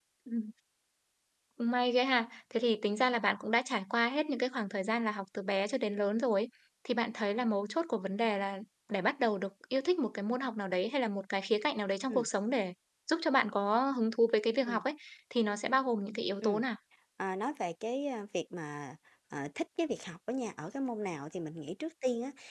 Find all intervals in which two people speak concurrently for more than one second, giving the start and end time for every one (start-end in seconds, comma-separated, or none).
none